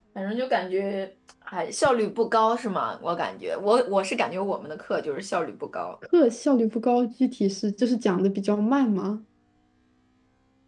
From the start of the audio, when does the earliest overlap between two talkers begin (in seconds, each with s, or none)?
none